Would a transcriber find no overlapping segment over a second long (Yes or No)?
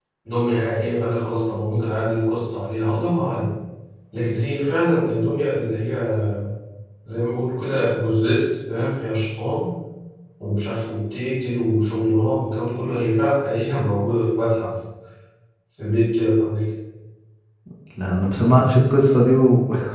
Yes